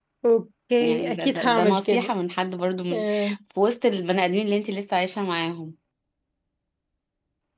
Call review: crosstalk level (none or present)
present